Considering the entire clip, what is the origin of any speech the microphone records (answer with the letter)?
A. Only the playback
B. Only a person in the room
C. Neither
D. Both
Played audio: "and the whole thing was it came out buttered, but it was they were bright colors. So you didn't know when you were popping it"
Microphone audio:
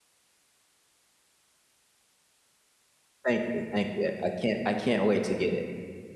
B